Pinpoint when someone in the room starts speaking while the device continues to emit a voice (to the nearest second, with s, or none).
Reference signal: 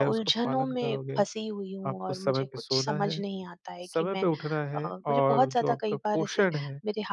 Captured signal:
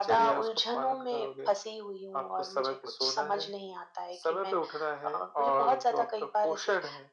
none